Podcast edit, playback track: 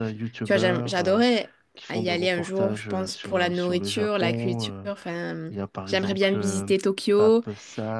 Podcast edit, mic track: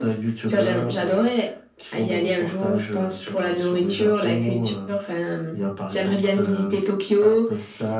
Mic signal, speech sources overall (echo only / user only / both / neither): echo only